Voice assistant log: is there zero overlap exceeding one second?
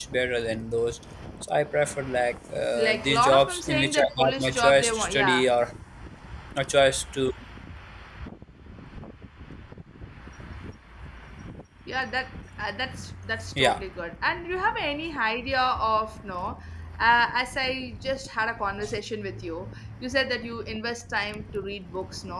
No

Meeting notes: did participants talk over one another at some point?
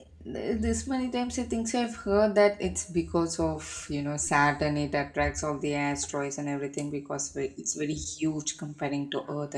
No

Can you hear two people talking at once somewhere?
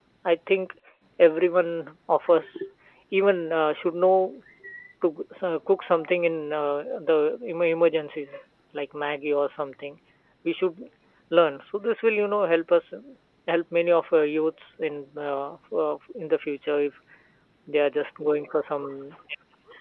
No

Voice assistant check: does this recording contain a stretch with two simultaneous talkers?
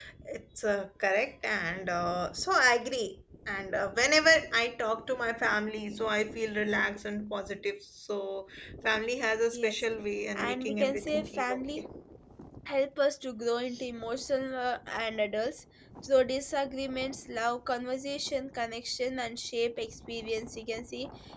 Yes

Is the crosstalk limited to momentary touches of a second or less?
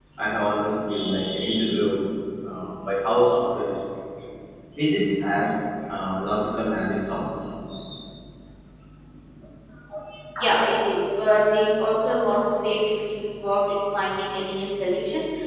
Yes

